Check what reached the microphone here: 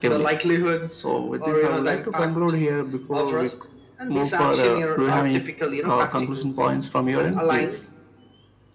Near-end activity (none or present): none